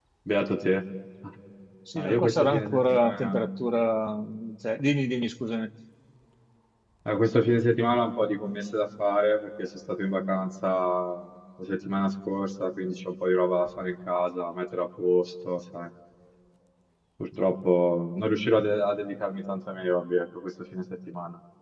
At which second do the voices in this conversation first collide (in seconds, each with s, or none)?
2.0 s